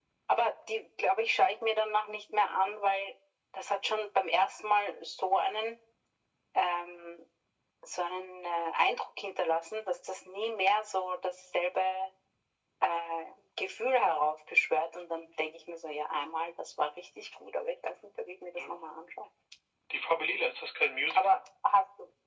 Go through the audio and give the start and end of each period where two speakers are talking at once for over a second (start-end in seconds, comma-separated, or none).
none